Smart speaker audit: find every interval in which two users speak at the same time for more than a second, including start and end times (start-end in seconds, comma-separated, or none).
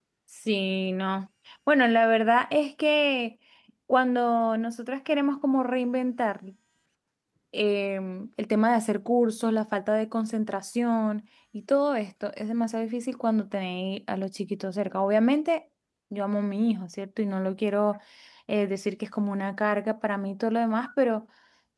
none